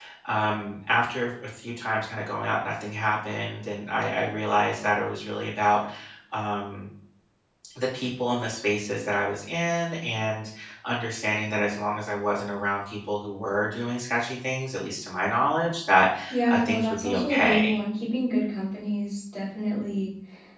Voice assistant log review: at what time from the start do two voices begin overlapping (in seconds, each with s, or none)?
16.5 s